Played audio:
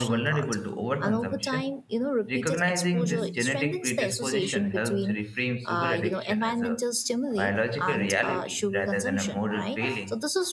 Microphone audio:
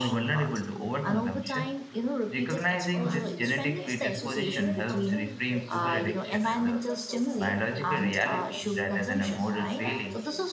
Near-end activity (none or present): present